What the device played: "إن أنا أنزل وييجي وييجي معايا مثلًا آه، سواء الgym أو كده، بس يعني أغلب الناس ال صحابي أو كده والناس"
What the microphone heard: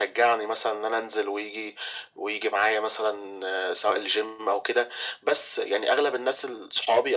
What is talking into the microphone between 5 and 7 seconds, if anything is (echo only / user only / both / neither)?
echo only